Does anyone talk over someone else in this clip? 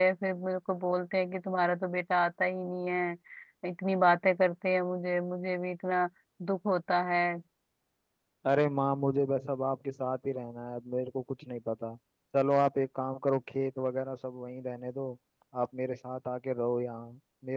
No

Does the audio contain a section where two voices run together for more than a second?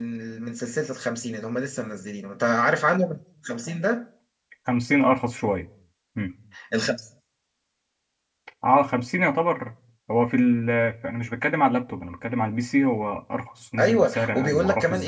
Yes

